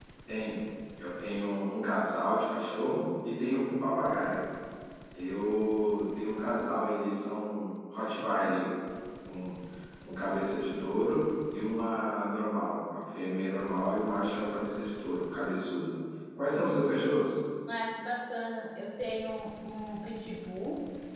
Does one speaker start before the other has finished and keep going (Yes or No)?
No